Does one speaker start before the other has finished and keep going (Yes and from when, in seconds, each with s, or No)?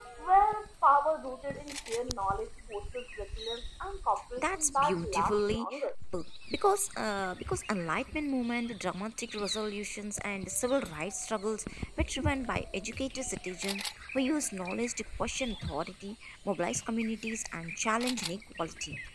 Yes, from 4.4 s